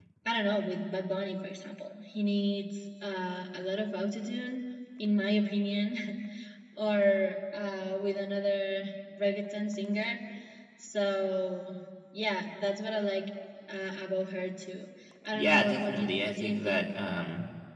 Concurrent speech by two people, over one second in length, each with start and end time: 15.3-16.8

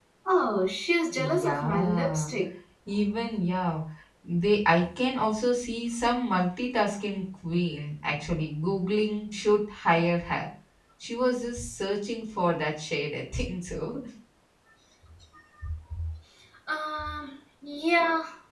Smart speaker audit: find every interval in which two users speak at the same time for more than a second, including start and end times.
1.1-2.3

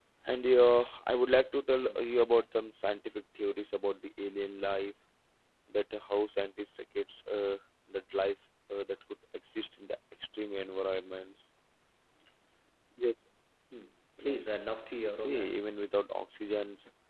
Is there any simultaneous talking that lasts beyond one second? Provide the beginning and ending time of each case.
14.2-15.6

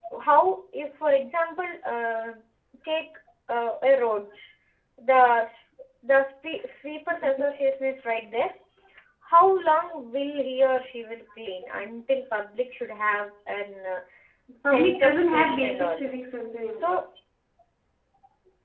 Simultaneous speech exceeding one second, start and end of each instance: 14.6-16.1

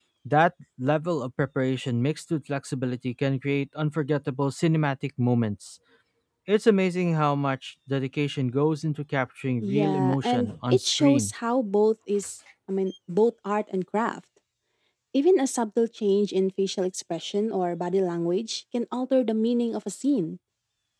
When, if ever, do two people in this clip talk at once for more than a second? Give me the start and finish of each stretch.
9.6-11.3

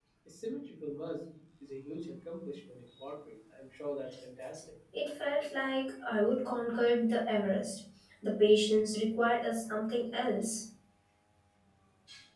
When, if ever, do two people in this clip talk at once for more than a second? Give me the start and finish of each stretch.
none

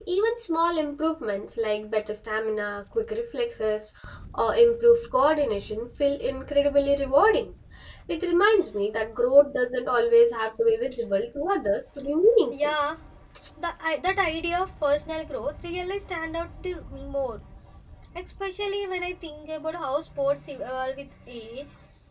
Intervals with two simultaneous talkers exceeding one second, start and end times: none

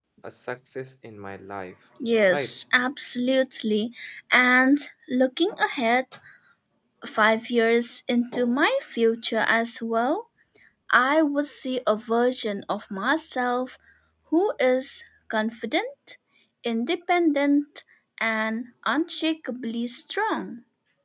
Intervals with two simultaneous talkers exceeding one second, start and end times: none

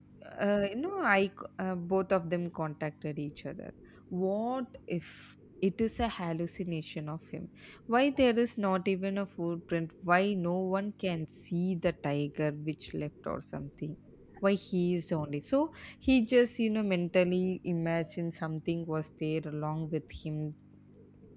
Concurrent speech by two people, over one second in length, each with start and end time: none

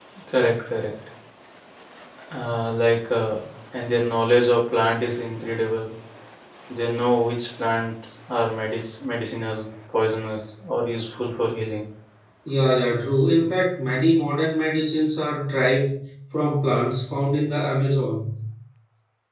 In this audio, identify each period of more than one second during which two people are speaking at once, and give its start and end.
none

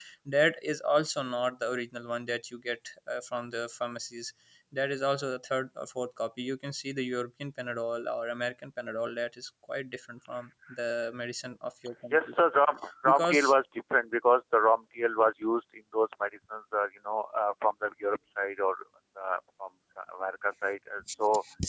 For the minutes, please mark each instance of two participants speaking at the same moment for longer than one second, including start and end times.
none

